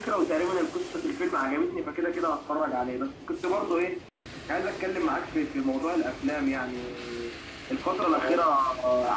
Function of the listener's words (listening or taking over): listening